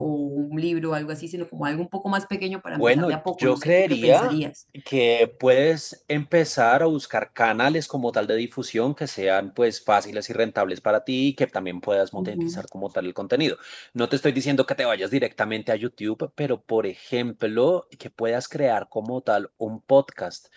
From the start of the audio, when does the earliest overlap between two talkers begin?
2.8 s

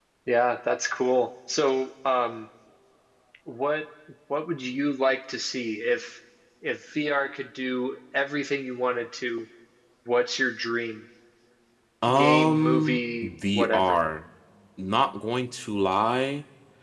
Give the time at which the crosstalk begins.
12.1 s

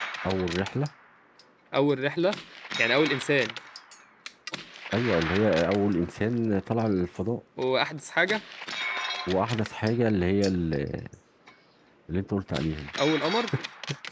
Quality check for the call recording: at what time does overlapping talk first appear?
none

